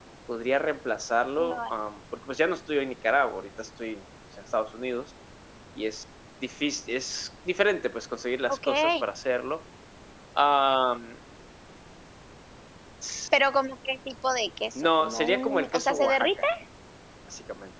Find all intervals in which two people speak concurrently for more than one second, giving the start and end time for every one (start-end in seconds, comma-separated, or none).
14.8-16.3